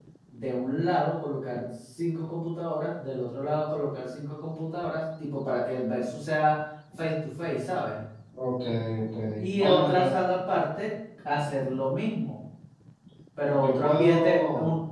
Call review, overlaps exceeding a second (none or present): present